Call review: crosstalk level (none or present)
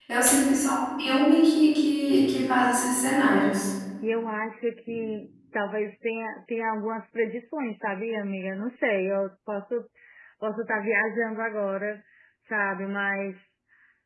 none